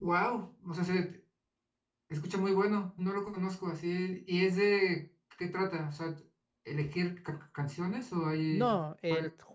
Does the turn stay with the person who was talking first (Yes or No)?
No